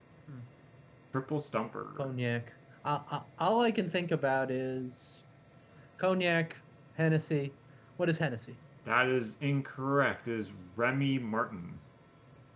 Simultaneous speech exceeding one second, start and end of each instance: none

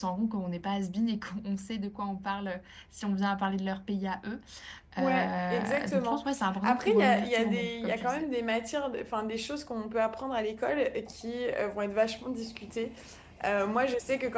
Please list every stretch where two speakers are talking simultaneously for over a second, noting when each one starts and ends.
5.0-6.2, 6.6-8.2

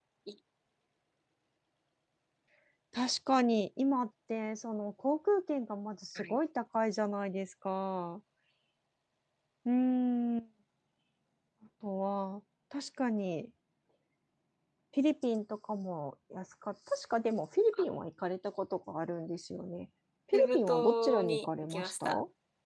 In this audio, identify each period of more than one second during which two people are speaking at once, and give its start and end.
20.3-22.1

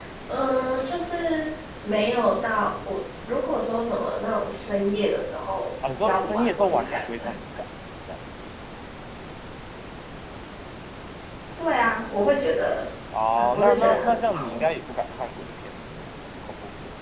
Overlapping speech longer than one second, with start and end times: 6.0-7.3, 13.4-14.6

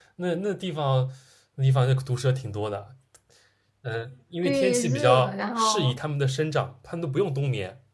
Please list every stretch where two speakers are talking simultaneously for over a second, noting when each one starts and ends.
4.4-6.0

